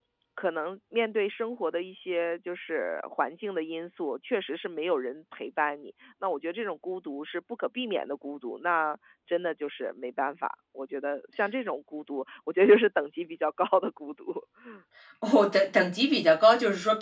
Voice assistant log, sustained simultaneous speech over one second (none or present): none